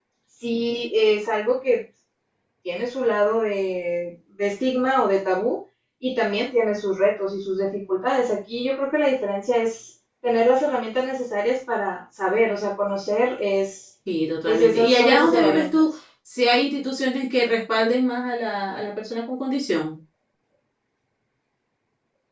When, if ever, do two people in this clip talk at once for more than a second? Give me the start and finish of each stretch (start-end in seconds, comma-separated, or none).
14.4-15.8